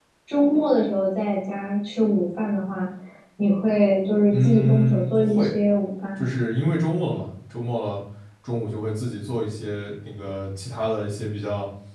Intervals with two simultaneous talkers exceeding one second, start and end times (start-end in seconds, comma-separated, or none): 4.3-5.5